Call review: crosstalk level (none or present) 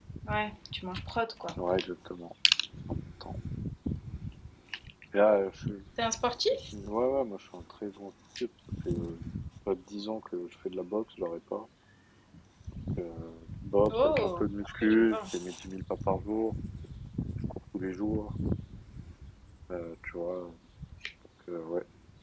present